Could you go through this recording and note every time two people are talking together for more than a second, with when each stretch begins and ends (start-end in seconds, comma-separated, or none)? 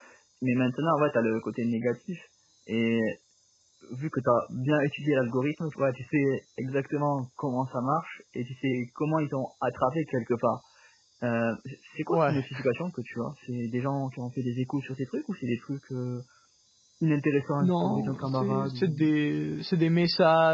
17.6-18.9